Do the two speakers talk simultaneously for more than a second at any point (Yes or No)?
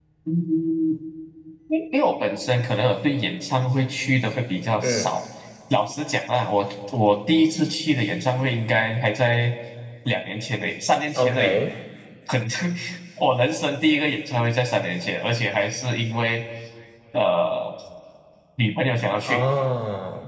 No